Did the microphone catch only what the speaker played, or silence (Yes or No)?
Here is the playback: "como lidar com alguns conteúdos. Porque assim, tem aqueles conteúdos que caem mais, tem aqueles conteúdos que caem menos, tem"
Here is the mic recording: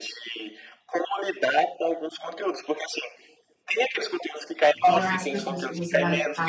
No